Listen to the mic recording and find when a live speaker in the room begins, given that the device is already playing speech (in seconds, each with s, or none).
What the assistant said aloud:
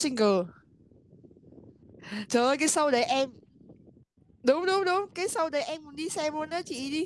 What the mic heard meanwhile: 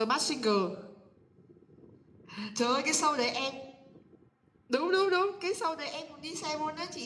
none